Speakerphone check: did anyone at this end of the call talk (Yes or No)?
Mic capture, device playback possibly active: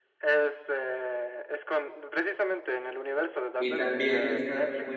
Yes